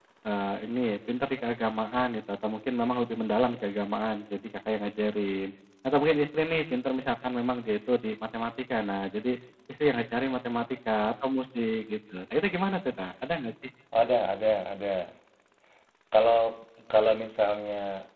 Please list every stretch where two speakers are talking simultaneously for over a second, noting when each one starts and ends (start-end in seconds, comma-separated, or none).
none